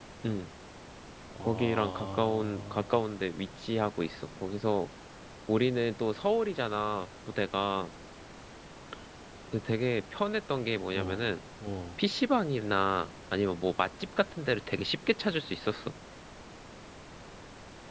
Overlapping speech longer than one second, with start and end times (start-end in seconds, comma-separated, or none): 1.4-3.0